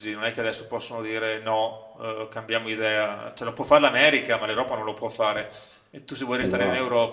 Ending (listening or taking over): listening